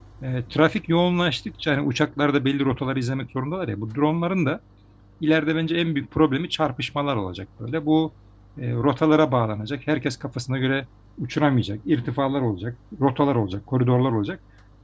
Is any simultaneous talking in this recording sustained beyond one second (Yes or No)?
No